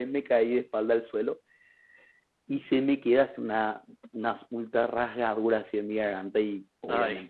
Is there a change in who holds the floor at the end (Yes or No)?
No